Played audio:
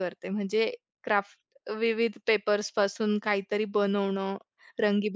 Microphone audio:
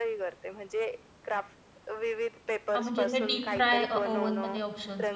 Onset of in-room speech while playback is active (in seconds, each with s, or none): 2.7 s